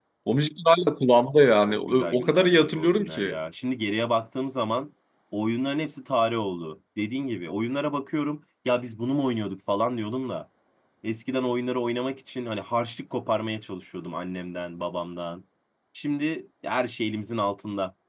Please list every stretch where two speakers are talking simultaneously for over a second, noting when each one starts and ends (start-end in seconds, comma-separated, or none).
1.6-3.4